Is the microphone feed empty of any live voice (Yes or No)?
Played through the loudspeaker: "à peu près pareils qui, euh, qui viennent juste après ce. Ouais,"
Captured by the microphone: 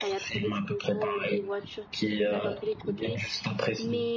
No